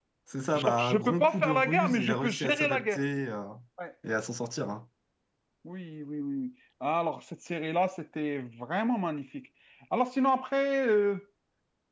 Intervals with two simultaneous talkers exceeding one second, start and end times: 0.5-3.0

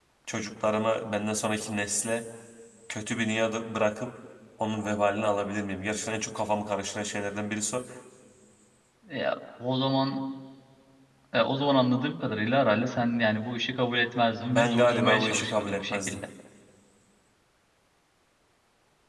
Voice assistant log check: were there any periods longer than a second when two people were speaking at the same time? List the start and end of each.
14.5-16.2

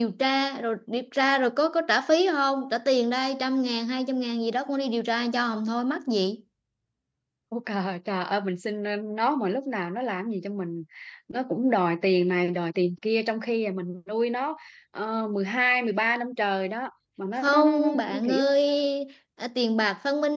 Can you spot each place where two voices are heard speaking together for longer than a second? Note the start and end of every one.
17.4-18.6

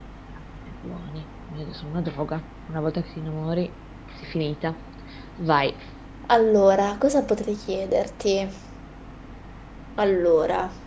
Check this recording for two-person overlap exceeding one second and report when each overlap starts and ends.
none

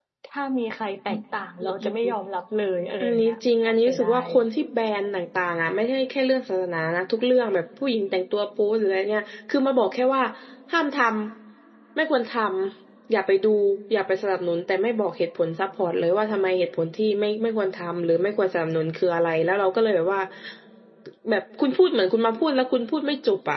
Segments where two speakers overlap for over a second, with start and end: 3.0-4.3

